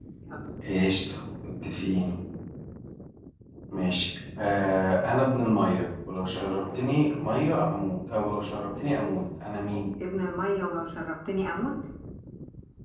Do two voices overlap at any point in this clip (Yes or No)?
No